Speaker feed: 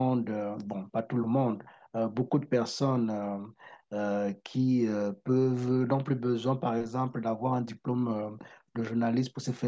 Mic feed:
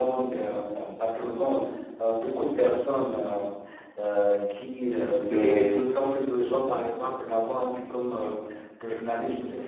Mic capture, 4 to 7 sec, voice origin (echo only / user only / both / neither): both